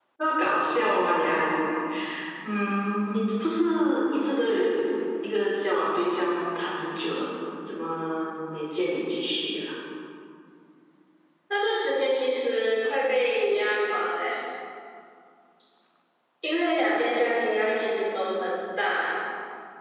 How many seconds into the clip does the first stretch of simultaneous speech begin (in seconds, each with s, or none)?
none